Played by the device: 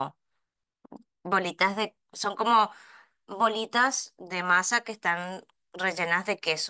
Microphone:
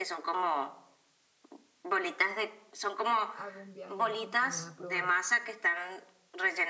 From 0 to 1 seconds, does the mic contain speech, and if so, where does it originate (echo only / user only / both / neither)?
echo only